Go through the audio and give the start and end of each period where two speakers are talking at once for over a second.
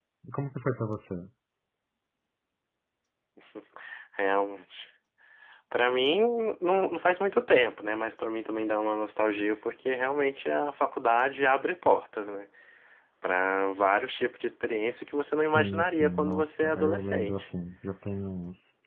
15.4-17.5

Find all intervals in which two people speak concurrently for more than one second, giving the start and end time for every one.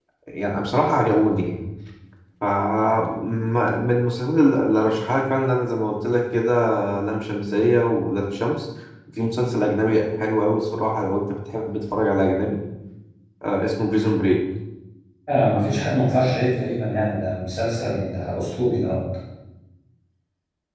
none

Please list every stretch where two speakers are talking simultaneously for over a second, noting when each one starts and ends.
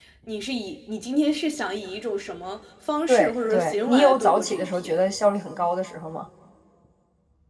3.1-5.0

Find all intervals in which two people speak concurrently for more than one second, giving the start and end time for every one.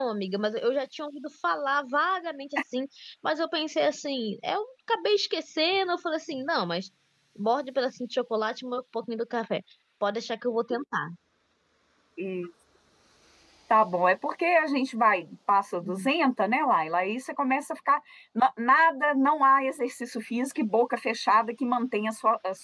none

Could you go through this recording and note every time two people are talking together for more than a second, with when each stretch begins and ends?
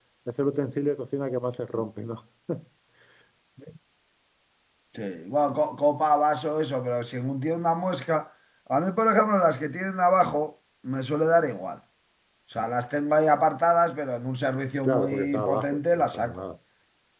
14.8-16.4

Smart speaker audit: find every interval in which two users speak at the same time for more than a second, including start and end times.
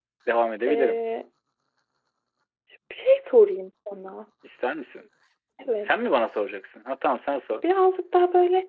none

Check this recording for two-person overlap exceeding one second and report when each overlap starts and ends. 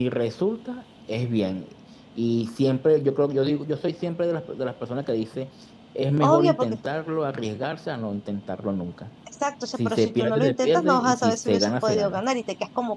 9.8-12.2

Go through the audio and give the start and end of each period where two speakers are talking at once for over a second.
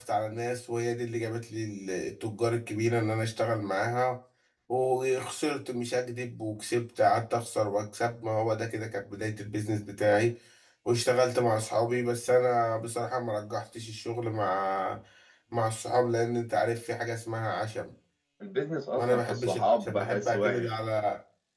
19.0-20.7

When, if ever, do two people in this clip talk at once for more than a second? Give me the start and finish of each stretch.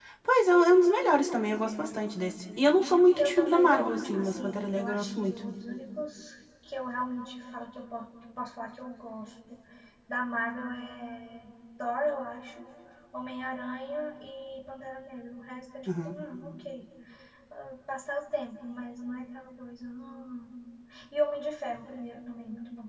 3.2-5.4

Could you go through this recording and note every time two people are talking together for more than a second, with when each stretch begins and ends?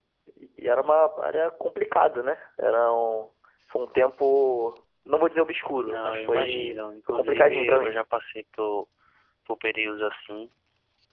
5.8-8.0

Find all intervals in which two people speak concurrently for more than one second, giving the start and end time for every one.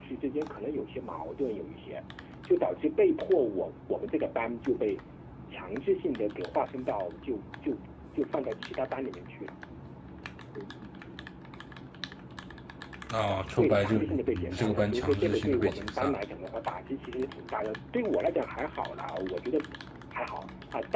13.6-16.2

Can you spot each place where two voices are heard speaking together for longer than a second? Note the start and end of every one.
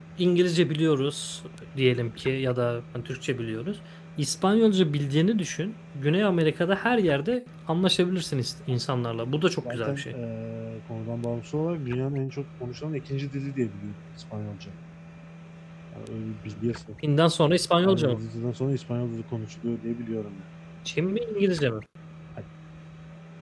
none

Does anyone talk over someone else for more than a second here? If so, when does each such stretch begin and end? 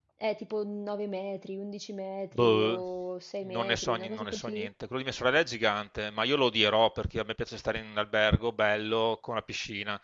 3.5-4.7

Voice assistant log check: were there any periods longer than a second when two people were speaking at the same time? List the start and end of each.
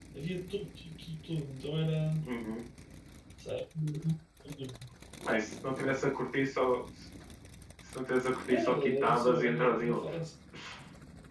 8.5-10.0

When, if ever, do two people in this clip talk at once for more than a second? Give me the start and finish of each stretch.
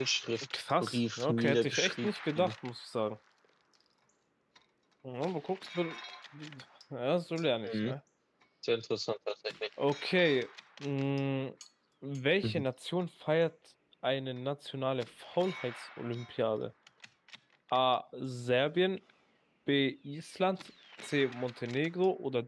0.8-2.5

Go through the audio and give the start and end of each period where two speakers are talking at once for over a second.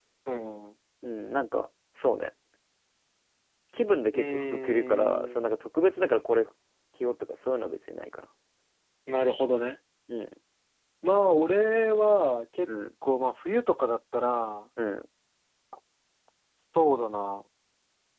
4.1-5.3

